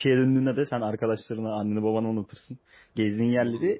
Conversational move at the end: listening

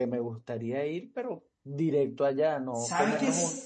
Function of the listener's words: taking over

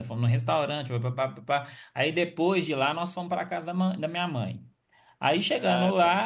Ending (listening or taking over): listening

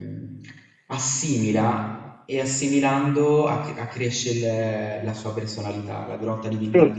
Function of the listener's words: listening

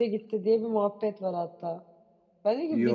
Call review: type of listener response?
listening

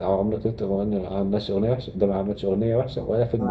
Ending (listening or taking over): taking over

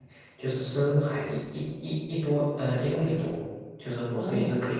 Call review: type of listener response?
listening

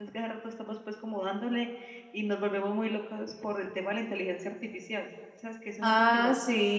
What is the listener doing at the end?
taking over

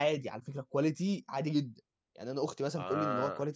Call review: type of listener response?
listening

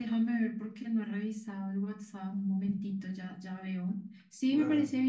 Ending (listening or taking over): listening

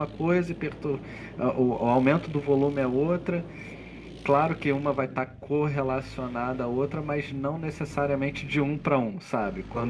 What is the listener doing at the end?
listening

